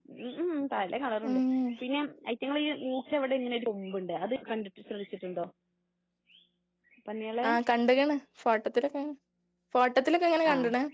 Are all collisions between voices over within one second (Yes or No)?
Yes